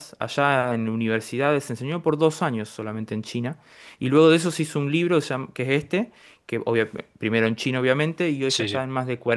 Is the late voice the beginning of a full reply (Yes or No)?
No